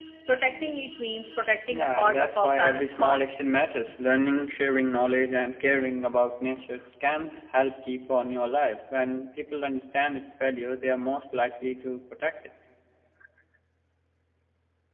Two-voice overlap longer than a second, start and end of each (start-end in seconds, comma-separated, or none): 1.7-3.2